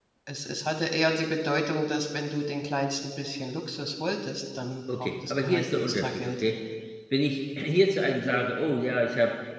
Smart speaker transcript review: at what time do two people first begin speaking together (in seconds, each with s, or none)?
4.9 s